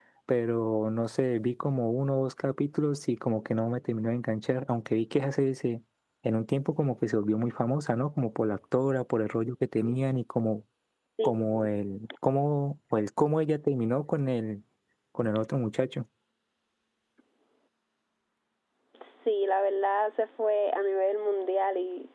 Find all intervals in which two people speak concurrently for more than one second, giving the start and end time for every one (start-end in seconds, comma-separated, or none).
none